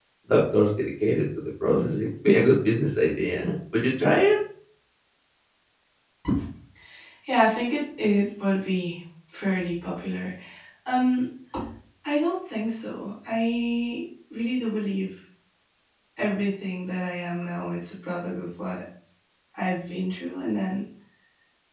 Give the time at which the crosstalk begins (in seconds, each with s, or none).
none